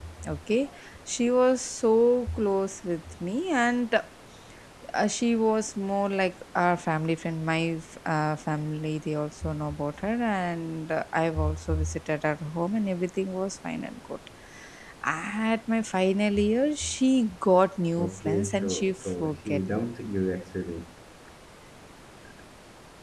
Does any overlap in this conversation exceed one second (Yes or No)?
Yes